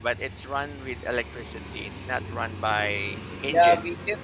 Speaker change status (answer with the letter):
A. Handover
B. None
A